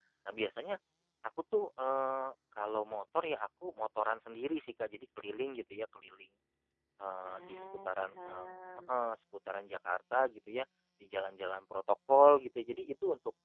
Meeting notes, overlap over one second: present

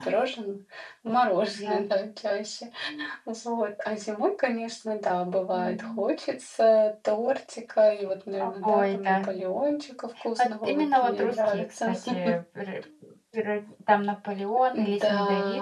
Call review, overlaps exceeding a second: present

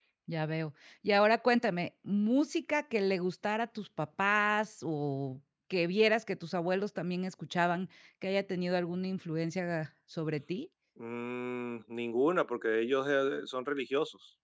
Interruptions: none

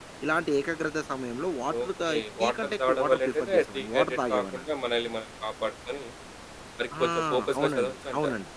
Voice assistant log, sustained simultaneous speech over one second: present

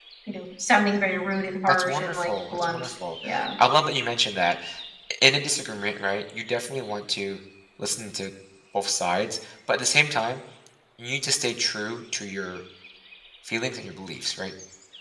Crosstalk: present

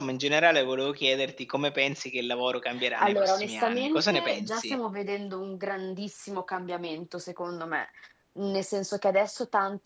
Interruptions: present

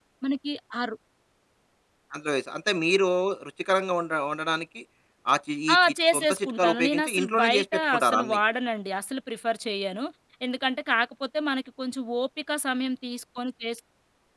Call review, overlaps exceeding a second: present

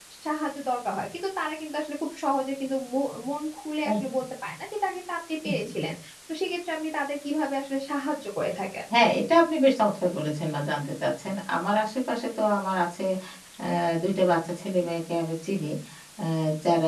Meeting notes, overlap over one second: none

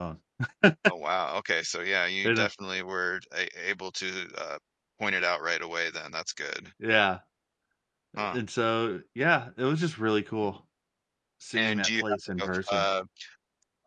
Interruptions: present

